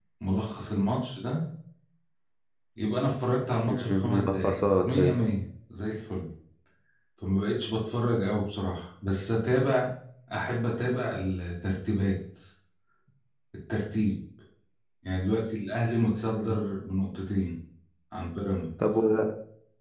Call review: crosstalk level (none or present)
present